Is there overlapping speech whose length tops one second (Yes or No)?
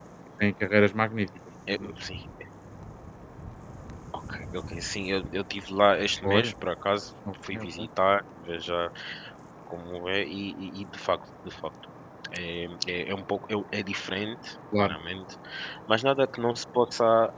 No